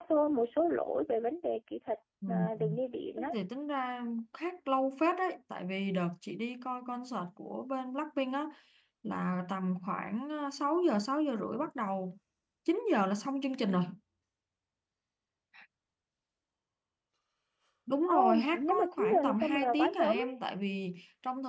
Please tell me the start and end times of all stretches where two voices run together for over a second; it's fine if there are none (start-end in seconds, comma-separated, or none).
18.1-20.1